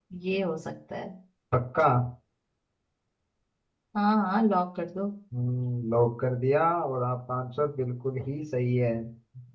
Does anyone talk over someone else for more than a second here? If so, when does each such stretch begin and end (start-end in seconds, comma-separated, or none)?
none